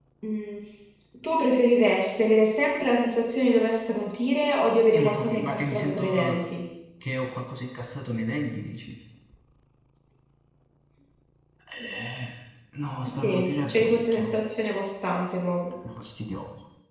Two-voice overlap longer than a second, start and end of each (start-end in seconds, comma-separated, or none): 5.0-6.4, 13.1-14.3